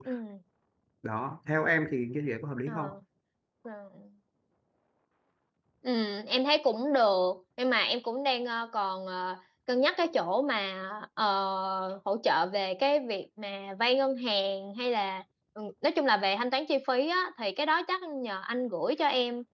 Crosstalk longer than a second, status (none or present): none